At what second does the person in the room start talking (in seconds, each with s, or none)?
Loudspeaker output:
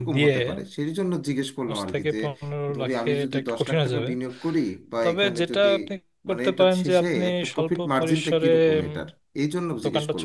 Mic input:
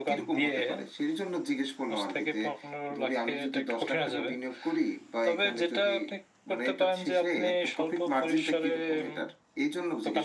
none